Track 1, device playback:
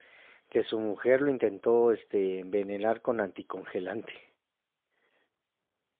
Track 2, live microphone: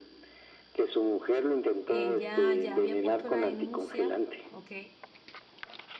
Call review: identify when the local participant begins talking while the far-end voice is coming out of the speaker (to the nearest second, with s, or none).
2 s